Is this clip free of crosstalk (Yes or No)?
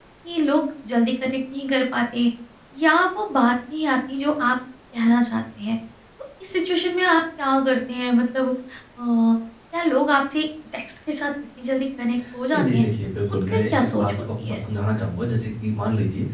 No